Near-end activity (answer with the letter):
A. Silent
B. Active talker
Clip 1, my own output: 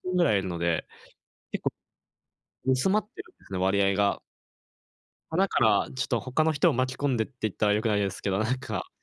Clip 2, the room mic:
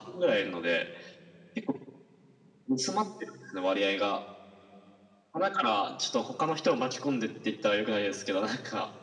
A